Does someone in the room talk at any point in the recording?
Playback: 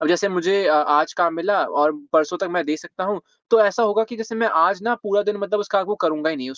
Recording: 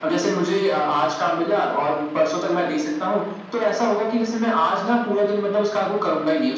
No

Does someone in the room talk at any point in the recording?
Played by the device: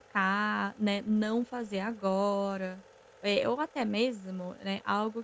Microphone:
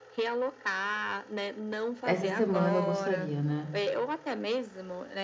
Yes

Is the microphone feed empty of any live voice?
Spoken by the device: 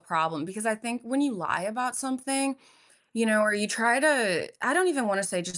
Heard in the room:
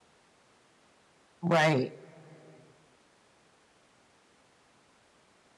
No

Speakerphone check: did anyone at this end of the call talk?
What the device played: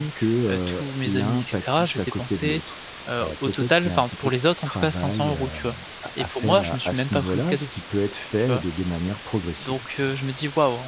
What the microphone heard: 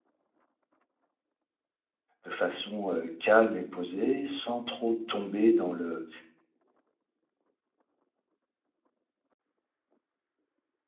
Yes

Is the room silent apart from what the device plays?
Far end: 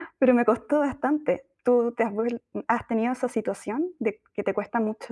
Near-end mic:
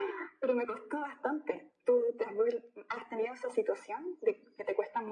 Yes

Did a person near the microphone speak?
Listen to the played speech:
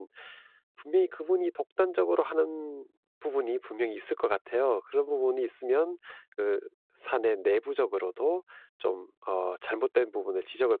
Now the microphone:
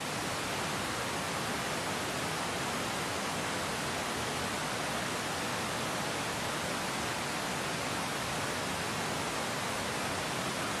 No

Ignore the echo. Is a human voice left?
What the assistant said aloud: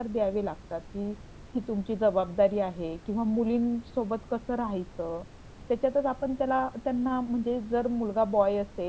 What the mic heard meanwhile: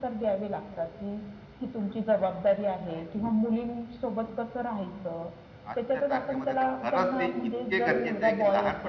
Yes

